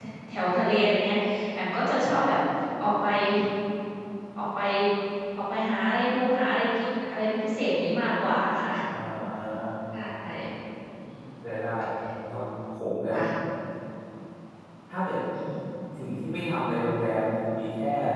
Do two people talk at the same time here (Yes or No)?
No